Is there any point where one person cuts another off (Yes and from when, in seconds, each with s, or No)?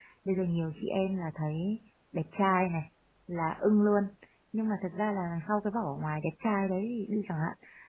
No